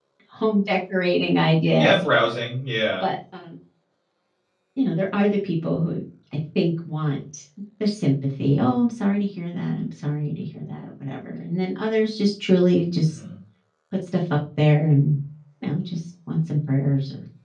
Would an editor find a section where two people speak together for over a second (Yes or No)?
No